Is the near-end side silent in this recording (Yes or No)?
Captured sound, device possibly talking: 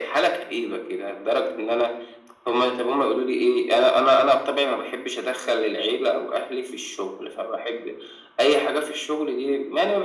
Yes